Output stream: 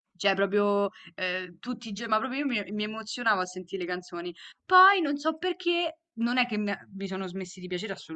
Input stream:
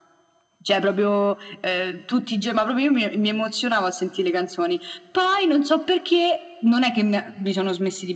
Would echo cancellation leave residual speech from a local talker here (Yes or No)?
No